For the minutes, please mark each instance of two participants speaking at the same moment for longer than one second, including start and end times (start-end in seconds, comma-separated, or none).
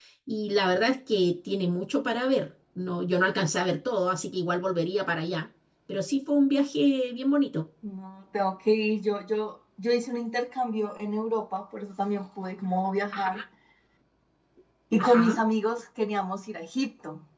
none